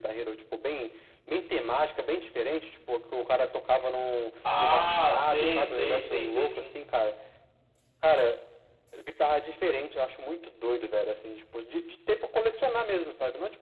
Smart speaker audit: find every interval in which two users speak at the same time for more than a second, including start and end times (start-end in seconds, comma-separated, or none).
4.6-6.7